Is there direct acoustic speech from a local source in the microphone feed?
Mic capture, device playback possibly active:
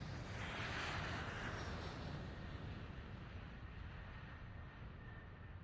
No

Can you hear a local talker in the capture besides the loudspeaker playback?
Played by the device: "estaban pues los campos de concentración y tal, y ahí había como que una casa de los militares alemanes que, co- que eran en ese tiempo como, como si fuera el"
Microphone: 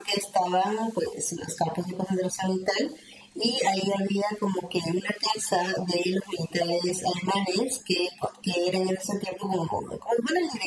No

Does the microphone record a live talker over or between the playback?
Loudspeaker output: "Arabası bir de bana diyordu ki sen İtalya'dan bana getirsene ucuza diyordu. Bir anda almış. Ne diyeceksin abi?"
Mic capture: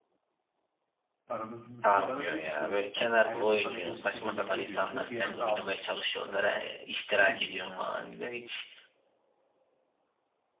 Yes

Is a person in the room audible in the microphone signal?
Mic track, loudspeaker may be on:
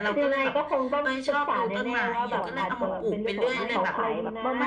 Yes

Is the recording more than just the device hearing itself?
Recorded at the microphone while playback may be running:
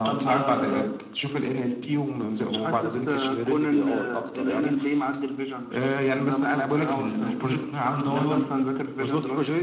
No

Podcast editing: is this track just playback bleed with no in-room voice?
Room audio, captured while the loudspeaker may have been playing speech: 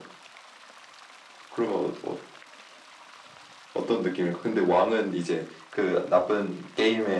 Yes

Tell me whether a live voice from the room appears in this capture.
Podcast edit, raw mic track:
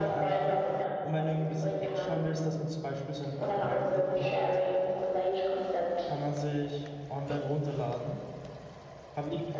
Yes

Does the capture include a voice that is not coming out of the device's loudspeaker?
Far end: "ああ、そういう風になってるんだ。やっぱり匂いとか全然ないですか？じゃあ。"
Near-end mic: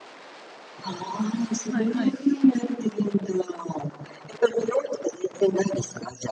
Yes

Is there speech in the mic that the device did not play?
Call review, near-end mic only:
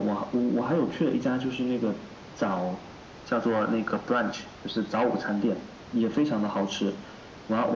No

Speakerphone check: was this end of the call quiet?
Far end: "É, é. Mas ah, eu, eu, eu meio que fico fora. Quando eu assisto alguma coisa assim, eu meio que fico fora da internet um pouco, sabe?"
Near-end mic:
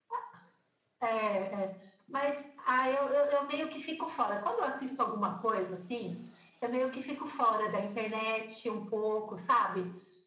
Yes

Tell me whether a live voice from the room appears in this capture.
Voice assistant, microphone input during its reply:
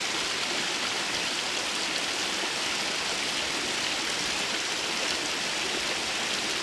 No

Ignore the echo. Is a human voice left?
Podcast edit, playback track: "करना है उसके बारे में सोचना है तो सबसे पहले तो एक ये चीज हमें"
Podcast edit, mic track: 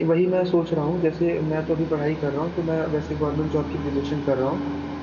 Yes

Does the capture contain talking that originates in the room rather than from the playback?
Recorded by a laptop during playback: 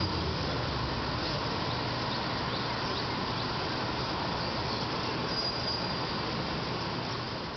No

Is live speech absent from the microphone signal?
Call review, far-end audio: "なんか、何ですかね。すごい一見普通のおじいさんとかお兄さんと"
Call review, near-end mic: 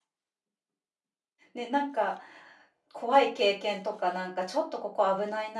No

